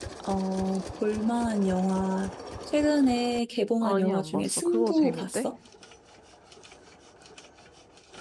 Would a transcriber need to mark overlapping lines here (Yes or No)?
Yes